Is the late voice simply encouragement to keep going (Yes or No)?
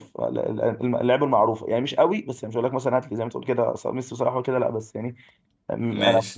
Yes